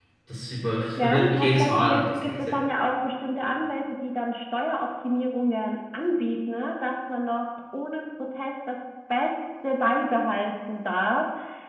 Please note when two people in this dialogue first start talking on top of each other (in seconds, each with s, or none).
1.0 s